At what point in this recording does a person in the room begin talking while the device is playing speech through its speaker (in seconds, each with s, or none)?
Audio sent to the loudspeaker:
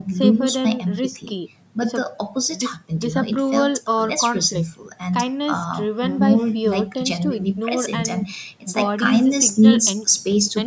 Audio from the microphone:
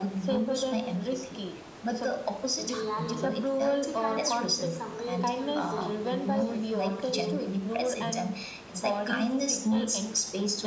2.6 s